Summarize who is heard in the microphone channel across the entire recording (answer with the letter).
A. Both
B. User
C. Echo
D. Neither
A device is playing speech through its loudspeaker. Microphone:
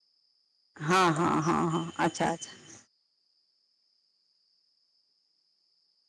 B